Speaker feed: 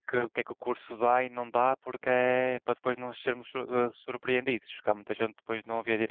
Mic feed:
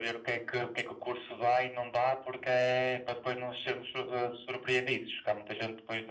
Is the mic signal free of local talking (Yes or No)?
Yes